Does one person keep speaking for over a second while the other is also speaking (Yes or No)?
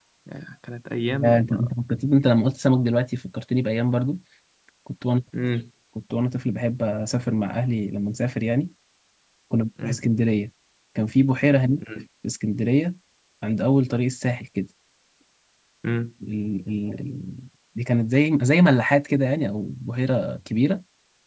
No